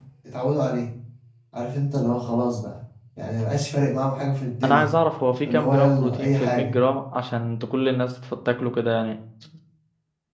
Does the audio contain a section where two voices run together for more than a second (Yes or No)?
Yes